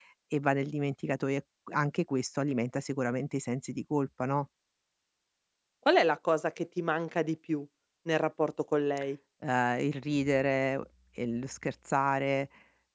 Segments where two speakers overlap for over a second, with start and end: none

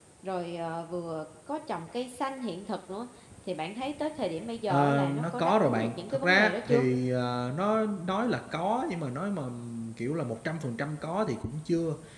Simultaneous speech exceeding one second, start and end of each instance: 4.7-6.8

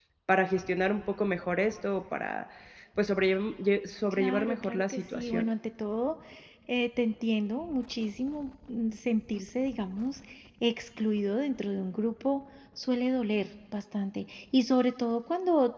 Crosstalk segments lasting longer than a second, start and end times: 4.1-5.5

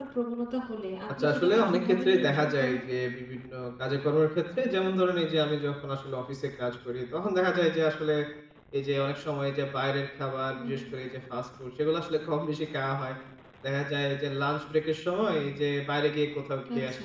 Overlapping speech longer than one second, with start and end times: 1.2-2.8

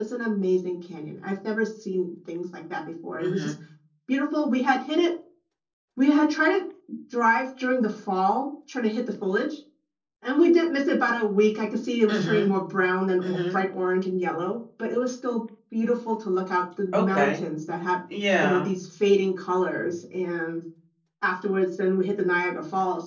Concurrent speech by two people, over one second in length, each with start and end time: none

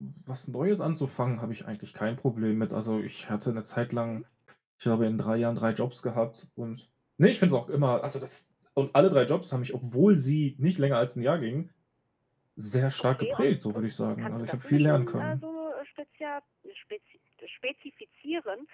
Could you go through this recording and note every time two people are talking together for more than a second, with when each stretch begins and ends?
13.0-15.4

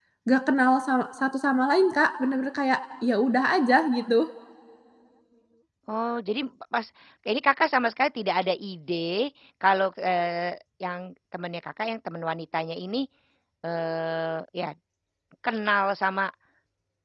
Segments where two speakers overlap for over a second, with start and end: none

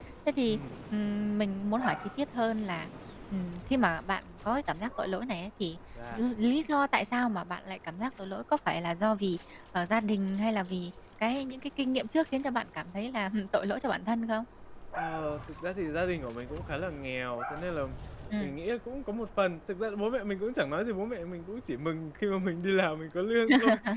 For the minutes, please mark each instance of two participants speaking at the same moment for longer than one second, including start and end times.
none

